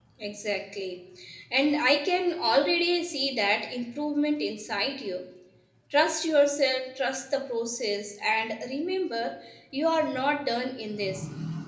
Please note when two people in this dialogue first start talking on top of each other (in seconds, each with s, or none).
none